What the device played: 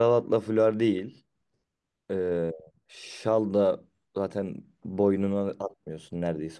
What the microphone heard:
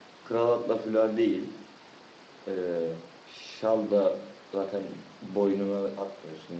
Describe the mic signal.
echo only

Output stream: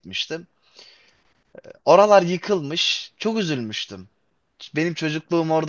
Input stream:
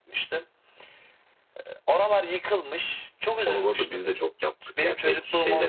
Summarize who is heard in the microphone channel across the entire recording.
both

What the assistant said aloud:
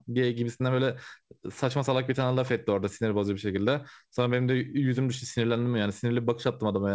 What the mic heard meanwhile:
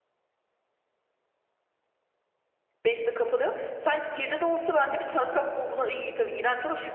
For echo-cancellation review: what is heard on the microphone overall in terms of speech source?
user only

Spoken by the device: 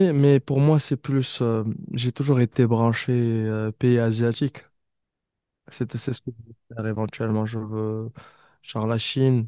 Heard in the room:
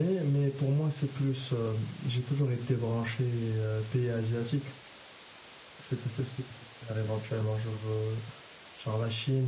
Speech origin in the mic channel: echo only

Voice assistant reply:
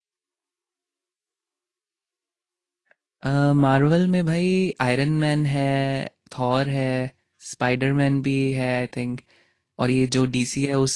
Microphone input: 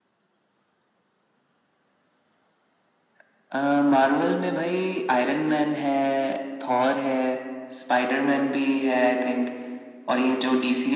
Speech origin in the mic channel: echo only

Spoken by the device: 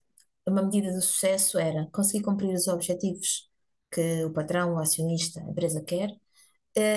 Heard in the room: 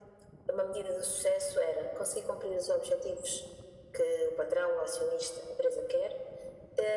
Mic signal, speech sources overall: echo only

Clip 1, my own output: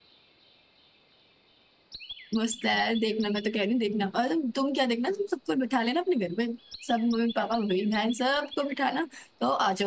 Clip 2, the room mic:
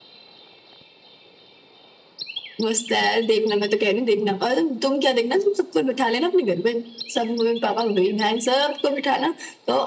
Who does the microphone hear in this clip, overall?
echo only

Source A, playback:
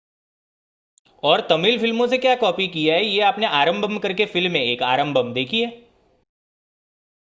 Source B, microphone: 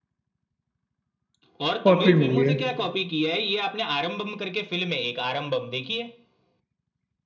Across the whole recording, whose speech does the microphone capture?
both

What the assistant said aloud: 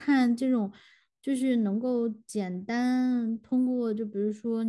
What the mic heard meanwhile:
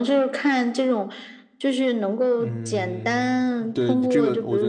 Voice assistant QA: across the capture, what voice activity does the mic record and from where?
both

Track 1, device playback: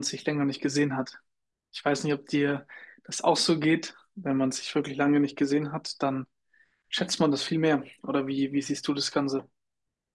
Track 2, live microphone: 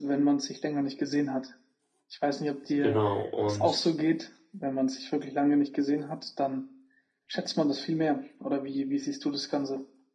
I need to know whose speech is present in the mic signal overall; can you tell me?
both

